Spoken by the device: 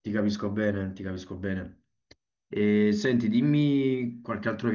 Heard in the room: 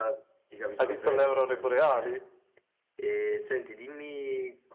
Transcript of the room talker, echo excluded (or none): Hai visto le aurore boreali?